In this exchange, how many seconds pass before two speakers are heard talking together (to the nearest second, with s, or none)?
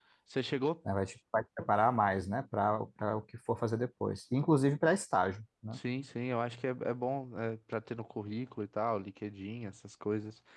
none